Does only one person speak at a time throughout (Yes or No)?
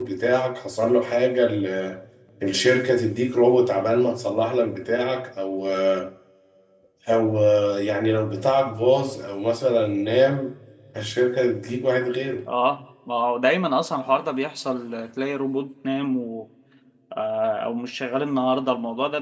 Yes